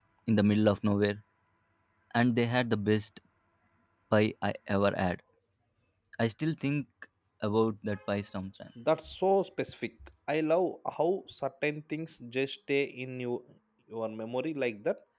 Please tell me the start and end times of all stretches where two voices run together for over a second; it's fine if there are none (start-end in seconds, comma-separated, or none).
none